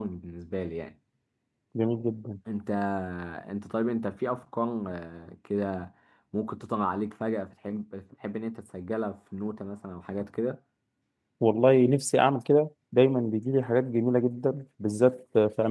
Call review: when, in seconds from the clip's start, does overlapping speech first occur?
none

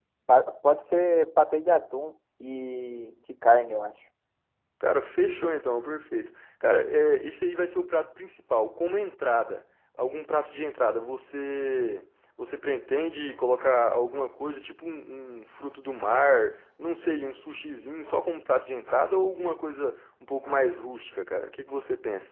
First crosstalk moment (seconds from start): none

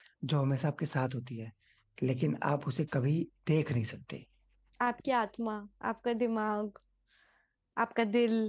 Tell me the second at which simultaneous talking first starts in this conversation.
none

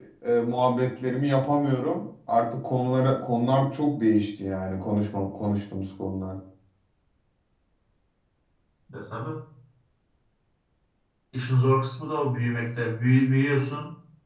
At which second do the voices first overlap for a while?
none

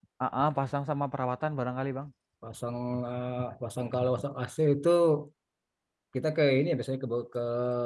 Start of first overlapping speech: none

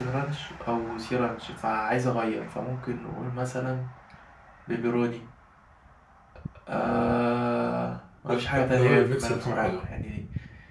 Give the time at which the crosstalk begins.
8.3 s

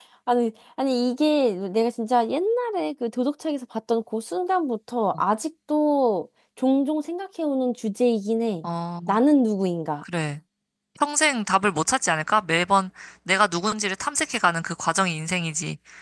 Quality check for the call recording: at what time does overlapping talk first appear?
none

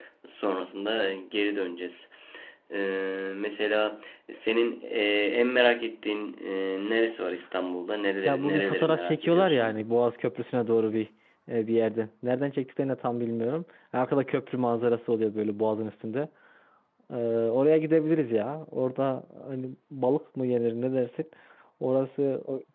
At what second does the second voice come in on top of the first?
8.2 s

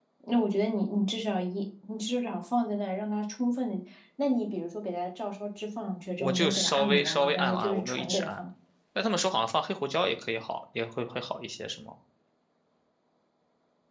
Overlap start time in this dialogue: 6.2 s

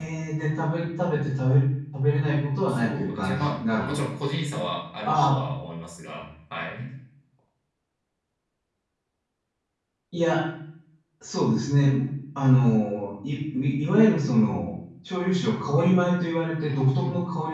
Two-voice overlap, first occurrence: 2.7 s

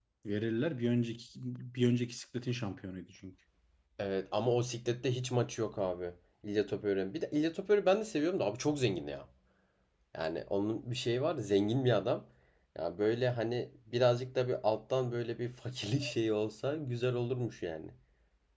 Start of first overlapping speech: none

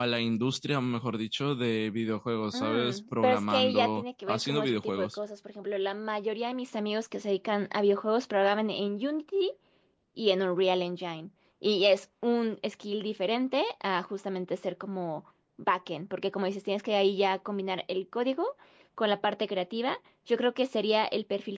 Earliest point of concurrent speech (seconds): 2.5 s

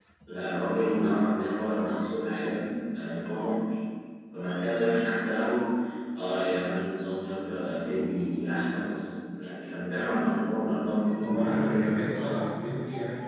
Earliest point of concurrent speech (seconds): 11.2 s

